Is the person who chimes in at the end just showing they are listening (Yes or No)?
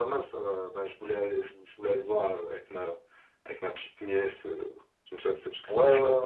No